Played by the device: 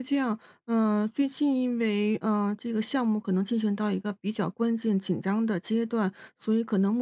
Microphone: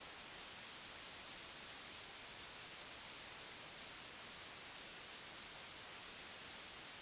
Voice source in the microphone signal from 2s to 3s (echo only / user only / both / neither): neither